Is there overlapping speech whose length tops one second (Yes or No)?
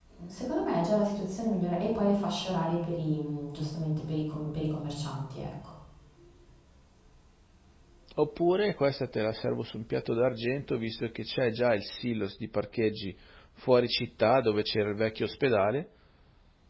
No